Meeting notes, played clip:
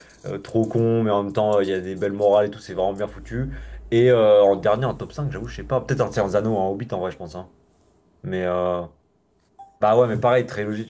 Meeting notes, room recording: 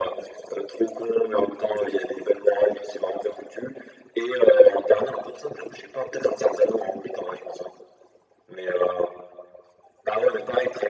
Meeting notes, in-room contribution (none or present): none